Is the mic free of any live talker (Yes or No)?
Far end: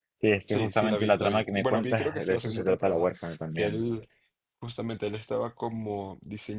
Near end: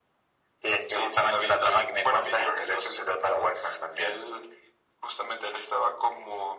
Yes